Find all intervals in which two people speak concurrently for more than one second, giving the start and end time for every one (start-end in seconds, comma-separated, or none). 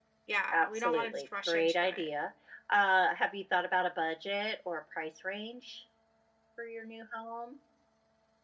0.5-2.1